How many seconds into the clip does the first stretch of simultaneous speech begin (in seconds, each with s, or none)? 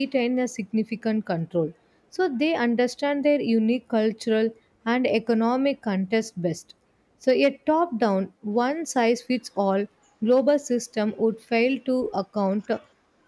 none